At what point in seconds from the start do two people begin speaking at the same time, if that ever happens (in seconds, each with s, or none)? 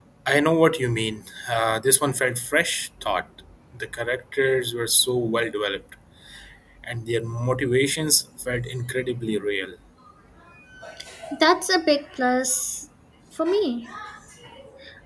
none